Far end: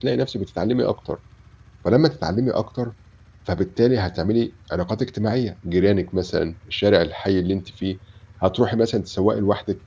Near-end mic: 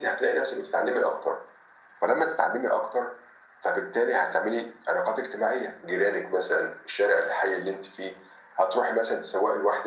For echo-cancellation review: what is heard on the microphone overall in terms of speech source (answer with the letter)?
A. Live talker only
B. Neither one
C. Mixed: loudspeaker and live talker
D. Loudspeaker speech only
D